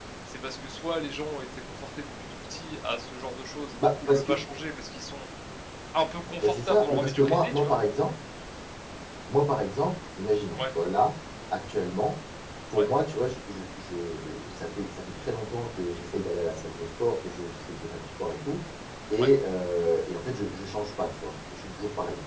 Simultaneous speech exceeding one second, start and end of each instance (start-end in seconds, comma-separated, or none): 6.4-7.7